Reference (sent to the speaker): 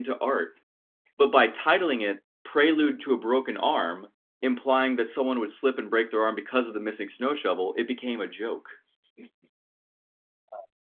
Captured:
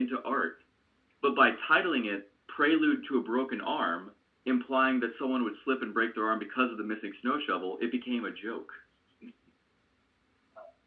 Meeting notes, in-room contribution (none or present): none